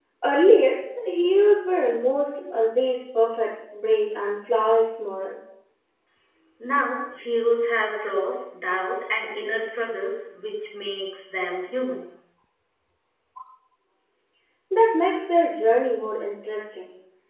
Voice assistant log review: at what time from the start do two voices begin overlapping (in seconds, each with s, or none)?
none